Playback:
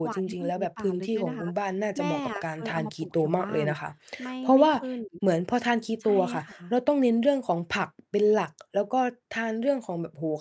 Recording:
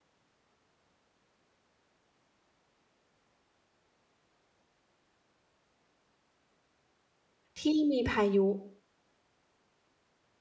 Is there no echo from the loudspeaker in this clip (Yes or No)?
Yes